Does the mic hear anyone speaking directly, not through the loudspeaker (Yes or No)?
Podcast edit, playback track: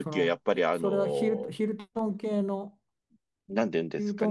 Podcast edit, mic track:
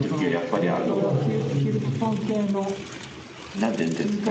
Yes